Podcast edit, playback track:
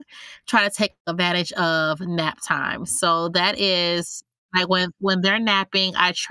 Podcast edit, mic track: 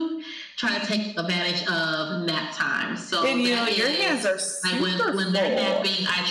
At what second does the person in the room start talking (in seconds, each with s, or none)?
3.2 s